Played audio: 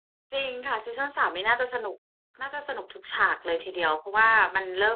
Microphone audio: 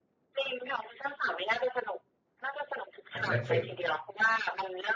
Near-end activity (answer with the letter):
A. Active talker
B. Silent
A